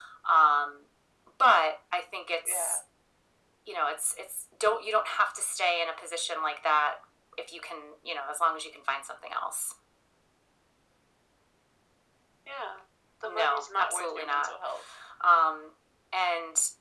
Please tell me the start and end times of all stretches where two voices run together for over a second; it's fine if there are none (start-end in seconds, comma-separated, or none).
13.2-14.6